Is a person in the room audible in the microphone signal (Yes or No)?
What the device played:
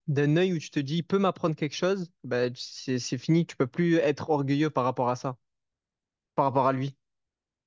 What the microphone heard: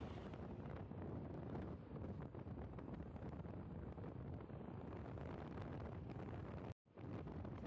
No